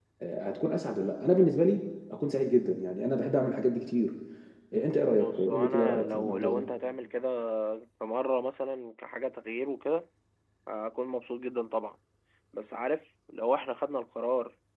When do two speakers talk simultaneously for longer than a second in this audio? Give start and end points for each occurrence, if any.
5.2-6.7

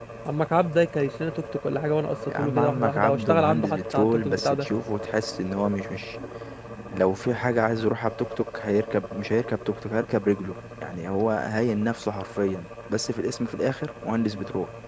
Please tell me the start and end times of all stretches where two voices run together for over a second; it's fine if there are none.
2.4-4.7

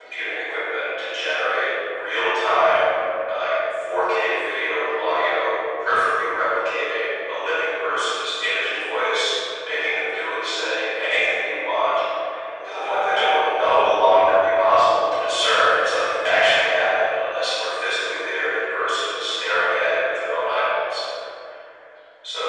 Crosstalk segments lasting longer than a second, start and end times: 12.6-13.9

